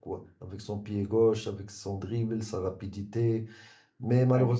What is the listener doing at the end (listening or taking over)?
listening